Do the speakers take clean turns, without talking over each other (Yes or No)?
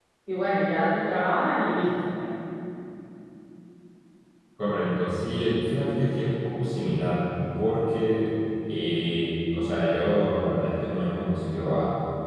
Yes